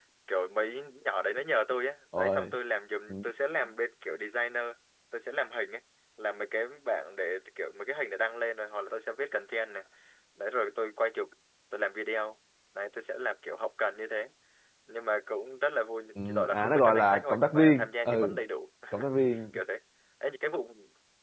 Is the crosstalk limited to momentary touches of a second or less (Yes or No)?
No